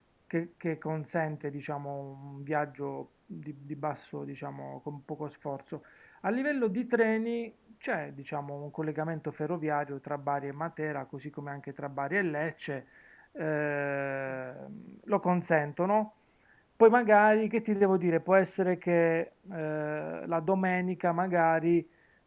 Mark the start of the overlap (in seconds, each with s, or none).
none